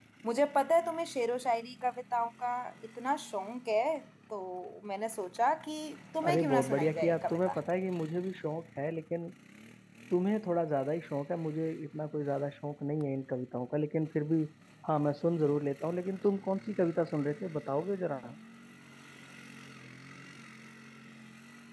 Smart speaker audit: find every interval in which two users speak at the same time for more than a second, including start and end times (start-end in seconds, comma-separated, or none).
6.3-7.5